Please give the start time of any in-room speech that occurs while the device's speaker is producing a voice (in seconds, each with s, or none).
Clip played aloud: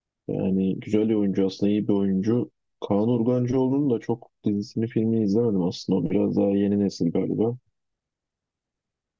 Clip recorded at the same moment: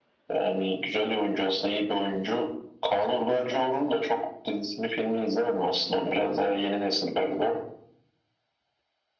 none